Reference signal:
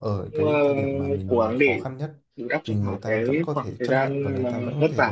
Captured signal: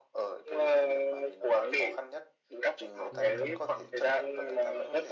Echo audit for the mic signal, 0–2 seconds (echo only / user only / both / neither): echo only